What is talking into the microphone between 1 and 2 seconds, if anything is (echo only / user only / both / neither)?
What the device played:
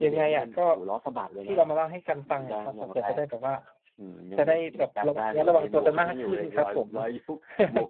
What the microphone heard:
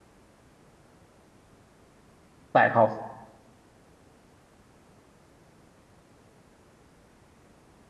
neither